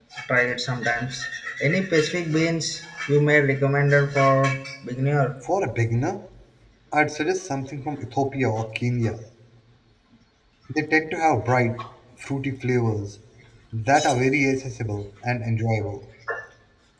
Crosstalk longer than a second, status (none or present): none